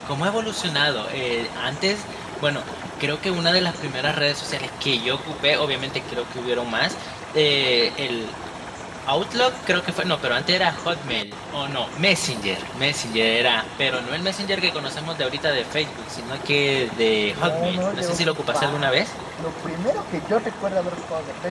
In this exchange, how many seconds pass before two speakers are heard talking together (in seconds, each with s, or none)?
17.3 s